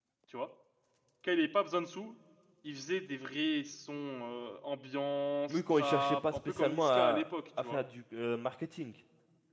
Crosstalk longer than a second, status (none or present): present